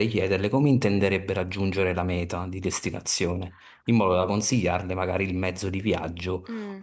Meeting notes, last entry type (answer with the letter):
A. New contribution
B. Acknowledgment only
B